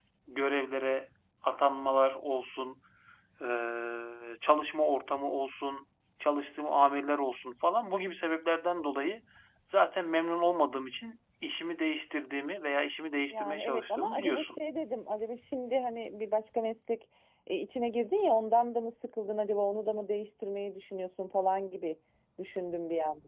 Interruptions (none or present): present